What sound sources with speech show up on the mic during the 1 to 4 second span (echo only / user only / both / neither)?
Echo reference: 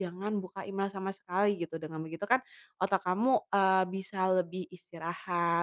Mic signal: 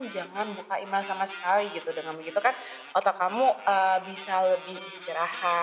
echo only